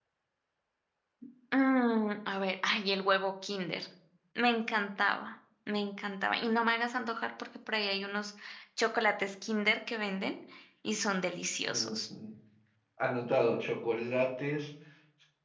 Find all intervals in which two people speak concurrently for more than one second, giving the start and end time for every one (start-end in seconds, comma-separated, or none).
none